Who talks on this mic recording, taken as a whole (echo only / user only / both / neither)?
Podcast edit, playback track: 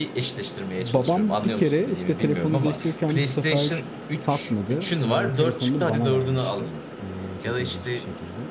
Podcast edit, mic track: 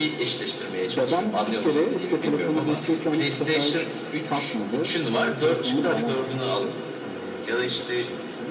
echo only